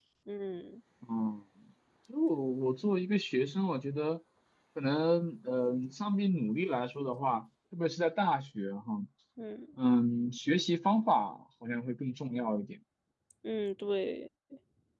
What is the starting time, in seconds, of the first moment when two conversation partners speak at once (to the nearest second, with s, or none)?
none